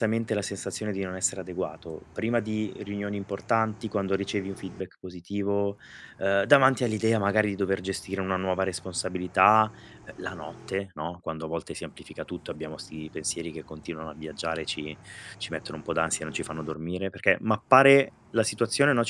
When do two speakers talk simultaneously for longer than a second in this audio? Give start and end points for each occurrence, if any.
none

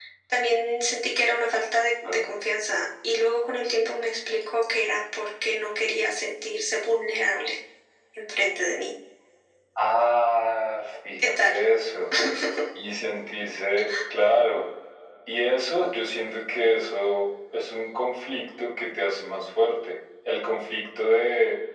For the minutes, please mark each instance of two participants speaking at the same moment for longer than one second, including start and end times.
none

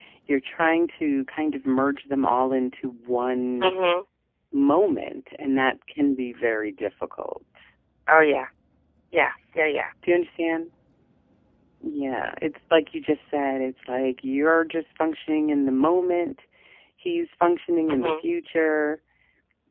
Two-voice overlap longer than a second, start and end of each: none

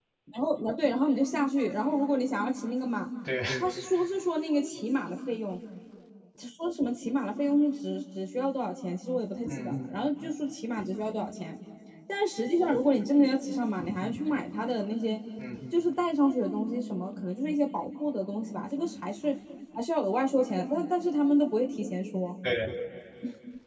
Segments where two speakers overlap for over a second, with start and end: none

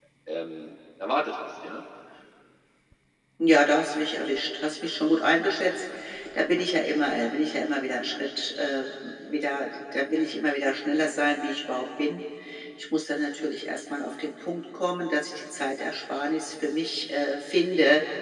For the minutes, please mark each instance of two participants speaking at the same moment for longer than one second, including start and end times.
none

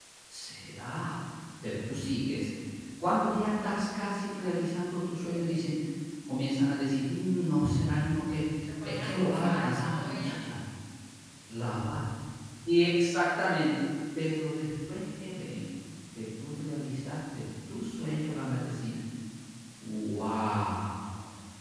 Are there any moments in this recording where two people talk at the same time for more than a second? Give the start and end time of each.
8.8-10.2

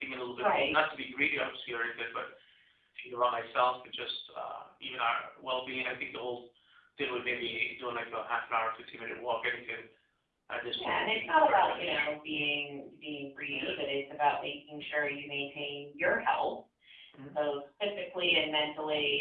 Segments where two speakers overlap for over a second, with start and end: 10.7-12.1

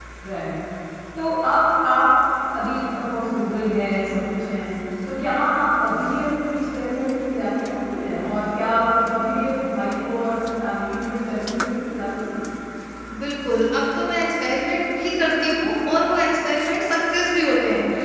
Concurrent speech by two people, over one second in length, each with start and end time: none

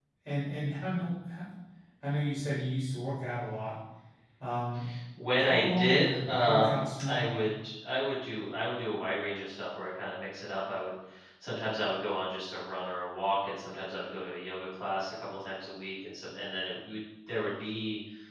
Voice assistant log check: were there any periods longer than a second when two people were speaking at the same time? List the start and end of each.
5.4-7.4

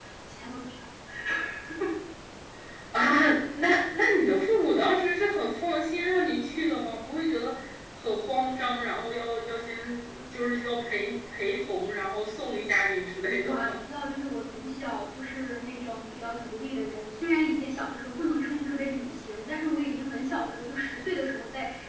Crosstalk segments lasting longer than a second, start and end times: none

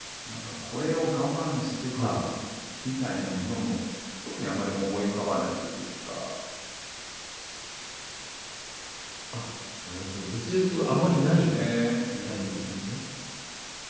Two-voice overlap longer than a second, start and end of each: 10.3-11.5

